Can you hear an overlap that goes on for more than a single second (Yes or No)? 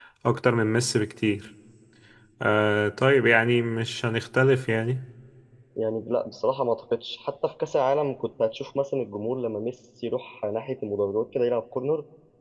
No